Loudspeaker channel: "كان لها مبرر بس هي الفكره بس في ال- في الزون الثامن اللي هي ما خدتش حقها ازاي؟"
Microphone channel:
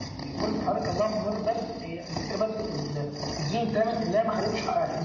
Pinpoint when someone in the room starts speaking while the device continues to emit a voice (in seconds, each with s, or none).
none